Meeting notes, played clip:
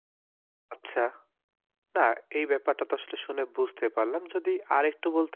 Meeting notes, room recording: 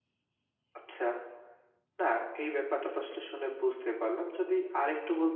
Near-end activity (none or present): none